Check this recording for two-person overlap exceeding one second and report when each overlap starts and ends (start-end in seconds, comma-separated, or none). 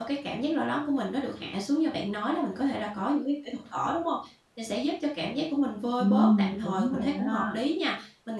6.0-7.6